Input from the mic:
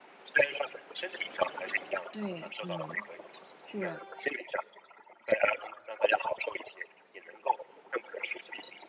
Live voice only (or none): 对，嗯，是。